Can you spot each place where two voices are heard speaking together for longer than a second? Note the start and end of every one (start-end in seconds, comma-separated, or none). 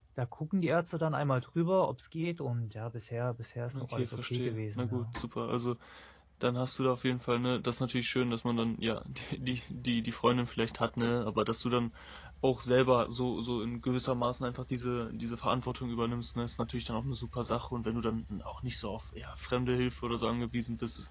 3.7-5.2